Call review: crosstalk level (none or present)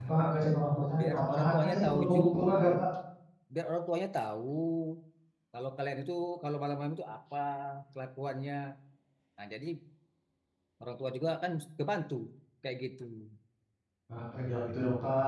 present